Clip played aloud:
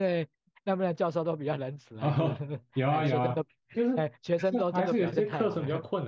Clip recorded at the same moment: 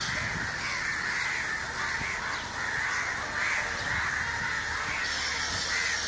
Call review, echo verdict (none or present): none